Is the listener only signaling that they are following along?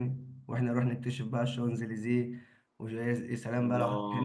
No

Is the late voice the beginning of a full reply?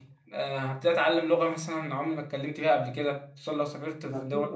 No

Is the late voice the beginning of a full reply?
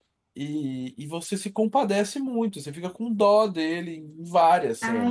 Yes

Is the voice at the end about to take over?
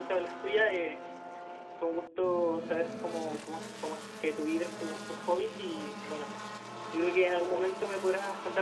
No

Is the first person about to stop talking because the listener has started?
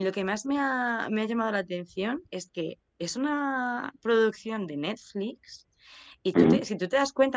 No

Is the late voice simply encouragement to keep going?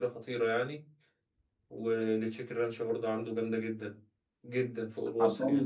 No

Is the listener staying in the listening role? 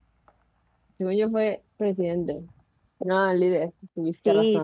No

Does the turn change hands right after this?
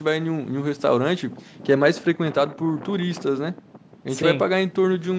No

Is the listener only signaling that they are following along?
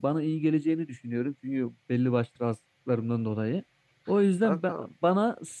Yes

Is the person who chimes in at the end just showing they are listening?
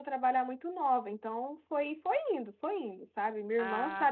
Yes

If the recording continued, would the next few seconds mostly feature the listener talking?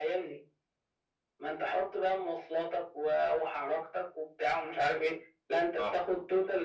No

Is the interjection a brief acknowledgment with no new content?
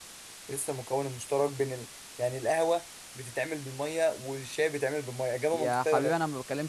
No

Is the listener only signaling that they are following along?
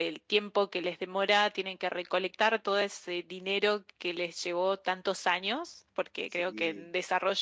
Yes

